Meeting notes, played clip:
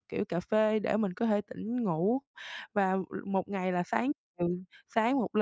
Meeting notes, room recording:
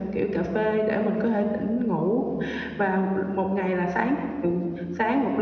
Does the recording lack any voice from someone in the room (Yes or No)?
Yes